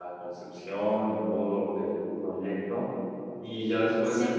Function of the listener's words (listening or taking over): listening